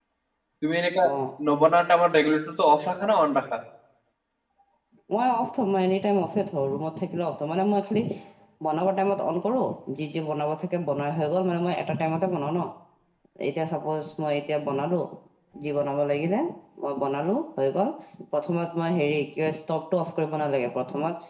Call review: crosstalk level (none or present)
none